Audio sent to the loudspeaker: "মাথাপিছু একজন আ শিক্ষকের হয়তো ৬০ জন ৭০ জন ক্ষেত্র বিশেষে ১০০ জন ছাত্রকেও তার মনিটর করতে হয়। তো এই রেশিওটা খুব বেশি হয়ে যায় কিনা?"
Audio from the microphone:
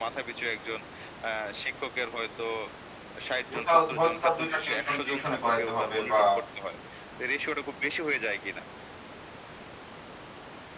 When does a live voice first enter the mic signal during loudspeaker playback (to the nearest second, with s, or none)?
3 s